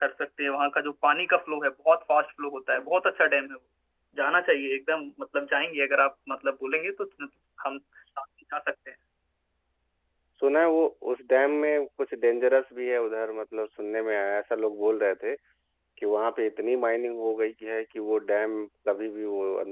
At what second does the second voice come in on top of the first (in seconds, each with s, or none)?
none